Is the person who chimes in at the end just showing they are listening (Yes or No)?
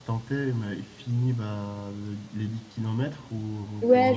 No